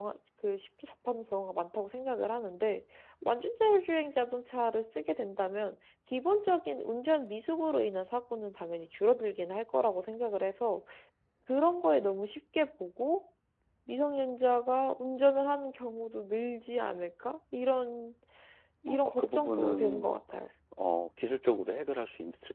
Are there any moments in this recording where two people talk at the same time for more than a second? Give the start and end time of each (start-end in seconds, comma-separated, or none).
18.9-20.1